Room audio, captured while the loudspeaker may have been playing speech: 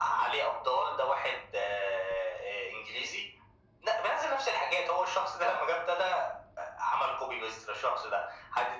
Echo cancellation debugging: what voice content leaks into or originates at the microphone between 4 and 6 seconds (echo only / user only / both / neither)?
echo only